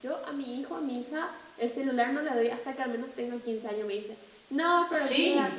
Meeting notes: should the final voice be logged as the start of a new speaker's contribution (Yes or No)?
No